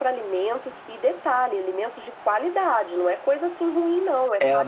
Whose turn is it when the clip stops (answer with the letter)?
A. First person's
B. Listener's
B